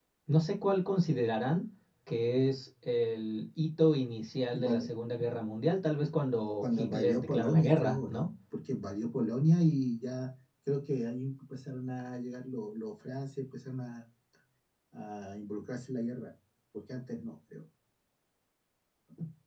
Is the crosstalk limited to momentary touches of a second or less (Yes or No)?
No